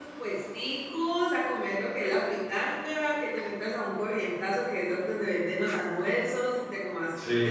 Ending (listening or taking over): listening